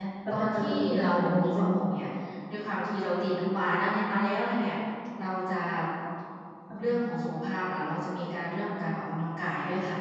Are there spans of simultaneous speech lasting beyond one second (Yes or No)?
Yes